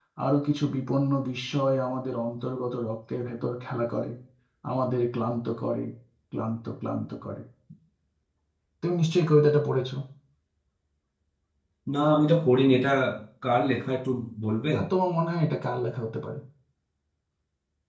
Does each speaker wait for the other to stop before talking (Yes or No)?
Yes